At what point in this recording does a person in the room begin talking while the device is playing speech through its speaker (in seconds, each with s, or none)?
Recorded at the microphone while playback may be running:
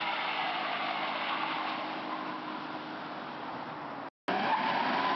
none